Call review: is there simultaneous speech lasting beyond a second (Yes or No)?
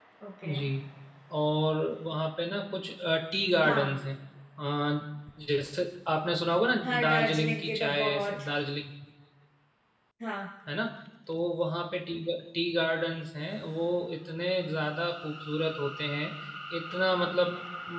Yes